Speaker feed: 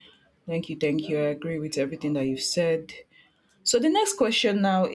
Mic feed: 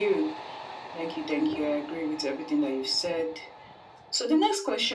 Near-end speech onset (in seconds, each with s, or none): none